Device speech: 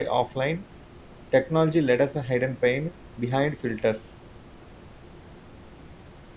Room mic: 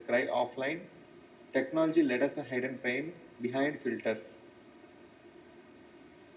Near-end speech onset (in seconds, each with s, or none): none